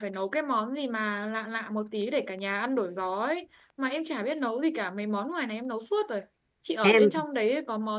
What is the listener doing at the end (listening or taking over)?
listening